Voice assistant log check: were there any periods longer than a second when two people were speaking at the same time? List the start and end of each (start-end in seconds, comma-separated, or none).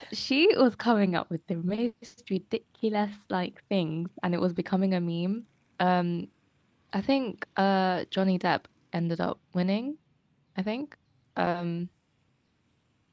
none